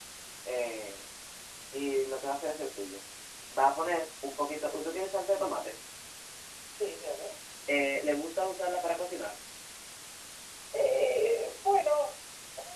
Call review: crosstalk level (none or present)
none